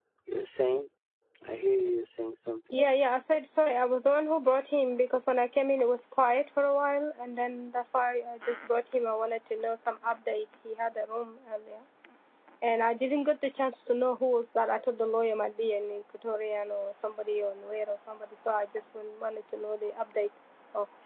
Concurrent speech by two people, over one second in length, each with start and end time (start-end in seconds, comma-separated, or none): none